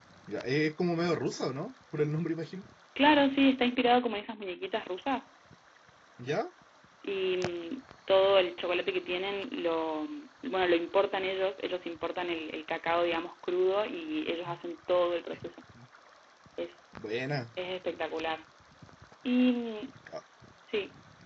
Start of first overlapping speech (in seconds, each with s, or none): none